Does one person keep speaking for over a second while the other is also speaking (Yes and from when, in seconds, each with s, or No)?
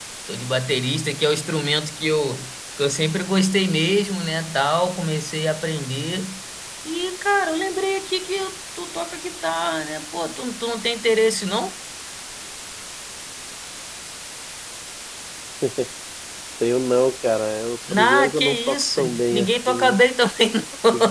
Yes, from 17.9 s